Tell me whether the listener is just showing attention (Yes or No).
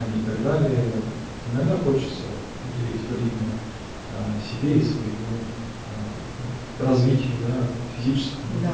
Yes